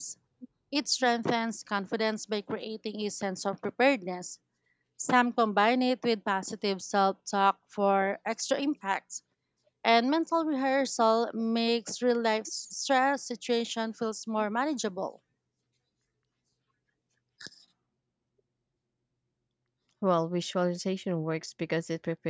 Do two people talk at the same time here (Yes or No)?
No